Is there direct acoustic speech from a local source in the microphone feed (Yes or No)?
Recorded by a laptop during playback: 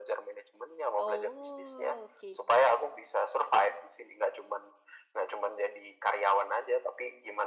Yes